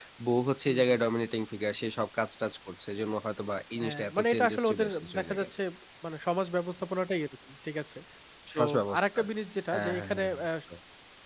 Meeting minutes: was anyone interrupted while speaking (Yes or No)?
Yes